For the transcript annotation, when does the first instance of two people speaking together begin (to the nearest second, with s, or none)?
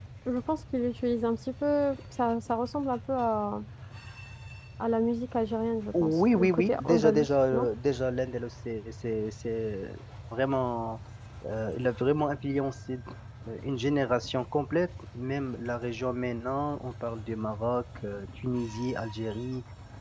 6 s